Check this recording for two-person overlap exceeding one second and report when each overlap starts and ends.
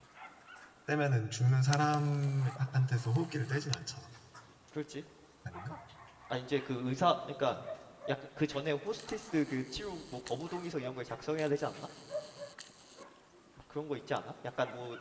none

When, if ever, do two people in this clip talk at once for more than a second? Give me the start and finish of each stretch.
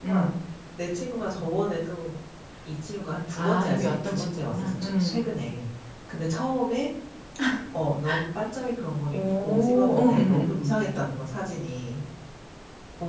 3.4-5.3, 9.1-10.8

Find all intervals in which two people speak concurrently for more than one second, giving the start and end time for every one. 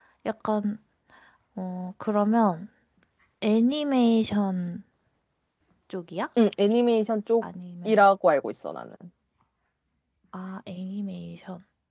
none

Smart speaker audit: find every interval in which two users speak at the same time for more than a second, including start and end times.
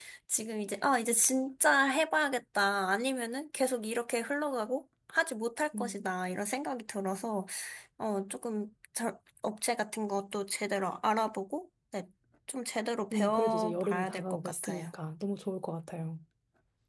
13.1-14.9

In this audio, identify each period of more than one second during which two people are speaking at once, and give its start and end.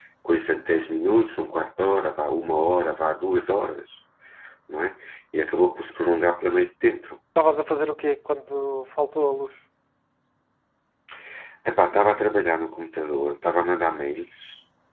none

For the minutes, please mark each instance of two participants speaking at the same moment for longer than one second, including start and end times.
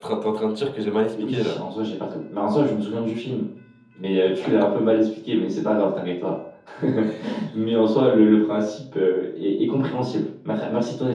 none

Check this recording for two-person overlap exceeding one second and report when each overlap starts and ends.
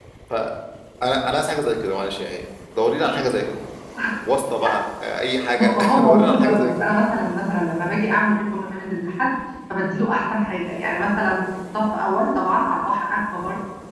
5.5-6.9

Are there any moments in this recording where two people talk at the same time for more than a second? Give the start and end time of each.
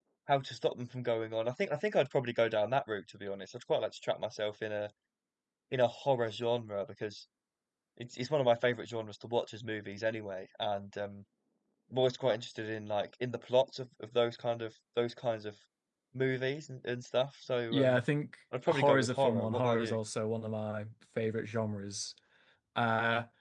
18.7-20.0

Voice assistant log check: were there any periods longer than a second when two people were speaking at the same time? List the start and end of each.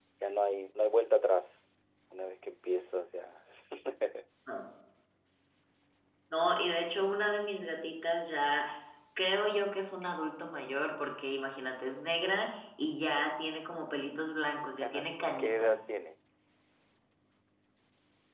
14.6-15.8

